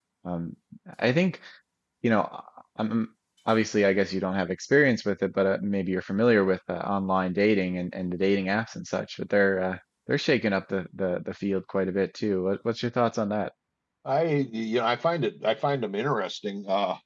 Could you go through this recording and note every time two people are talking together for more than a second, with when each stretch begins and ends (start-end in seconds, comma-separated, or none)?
none